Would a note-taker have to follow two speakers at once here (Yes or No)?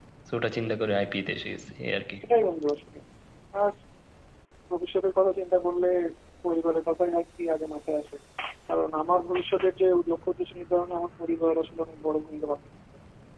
No